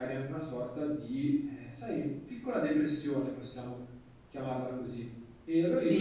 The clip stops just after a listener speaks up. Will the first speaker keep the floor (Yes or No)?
No